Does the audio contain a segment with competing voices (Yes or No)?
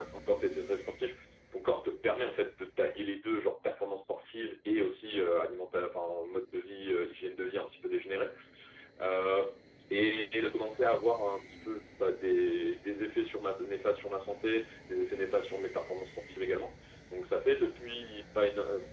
No